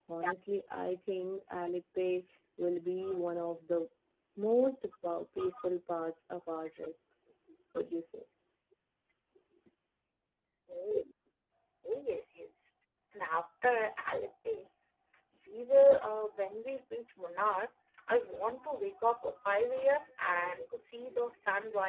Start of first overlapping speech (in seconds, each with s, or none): none